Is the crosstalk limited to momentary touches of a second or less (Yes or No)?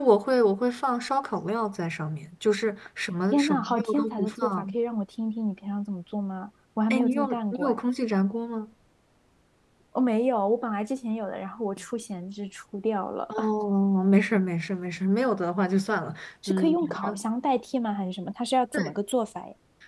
No